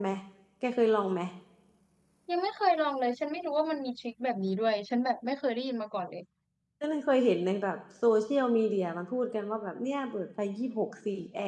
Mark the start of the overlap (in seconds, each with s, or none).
none